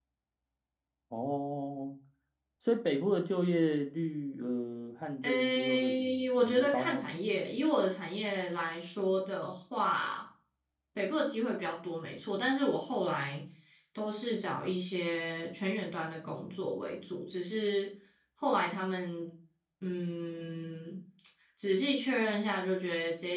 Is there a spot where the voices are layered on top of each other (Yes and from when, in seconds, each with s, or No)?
Yes, from 5.2 s